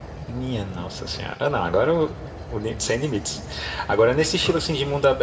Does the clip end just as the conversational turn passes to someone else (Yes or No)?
No